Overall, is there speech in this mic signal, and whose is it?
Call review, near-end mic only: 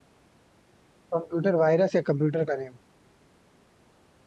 user only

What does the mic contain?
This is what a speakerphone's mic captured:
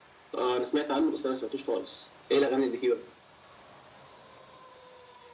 echo only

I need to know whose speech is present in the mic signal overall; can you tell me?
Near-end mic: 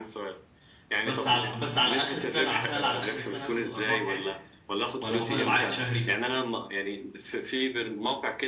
both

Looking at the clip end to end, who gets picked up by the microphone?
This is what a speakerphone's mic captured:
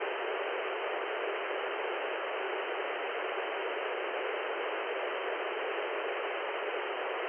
neither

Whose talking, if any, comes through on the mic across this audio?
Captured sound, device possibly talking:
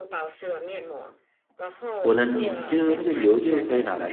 both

